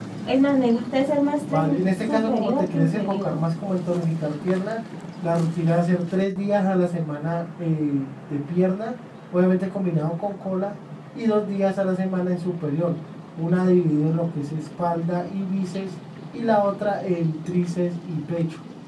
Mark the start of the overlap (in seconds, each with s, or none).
1.4 s